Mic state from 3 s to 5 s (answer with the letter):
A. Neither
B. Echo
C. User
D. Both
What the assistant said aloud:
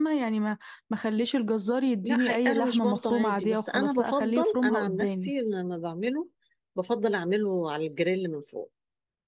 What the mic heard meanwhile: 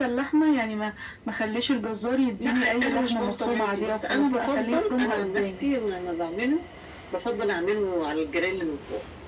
B